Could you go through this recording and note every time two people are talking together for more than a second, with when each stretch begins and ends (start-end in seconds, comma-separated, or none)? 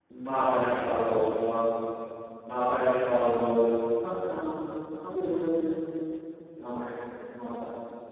none